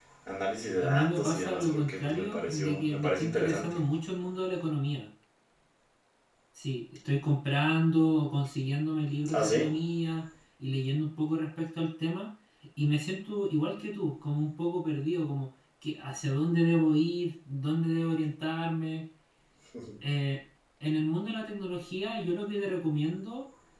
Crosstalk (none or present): present